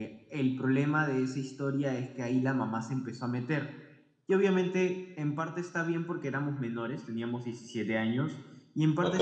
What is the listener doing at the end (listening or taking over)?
listening